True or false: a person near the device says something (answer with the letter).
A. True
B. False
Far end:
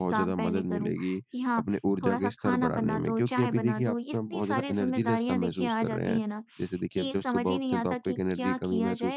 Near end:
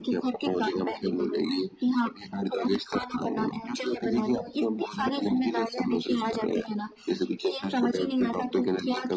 B